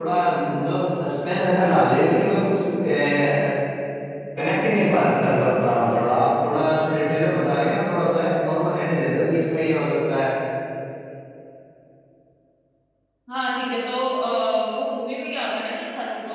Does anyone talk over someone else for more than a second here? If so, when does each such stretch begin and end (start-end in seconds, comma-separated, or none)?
none